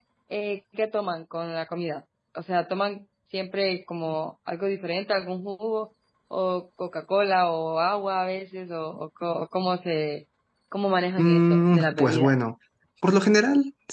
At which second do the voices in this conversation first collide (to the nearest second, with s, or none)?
11 s